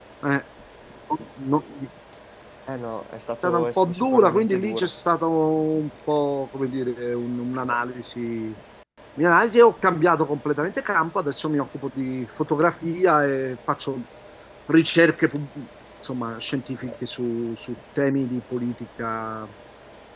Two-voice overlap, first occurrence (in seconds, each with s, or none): 3.4 s